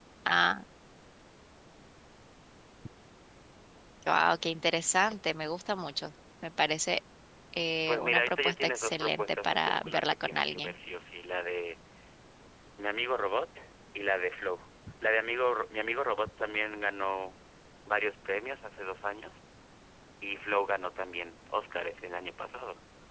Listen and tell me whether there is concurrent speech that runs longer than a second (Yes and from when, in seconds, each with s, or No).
Yes, from 7.9 s